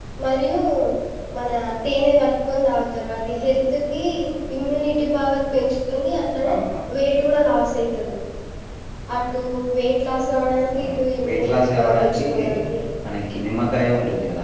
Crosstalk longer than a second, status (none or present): present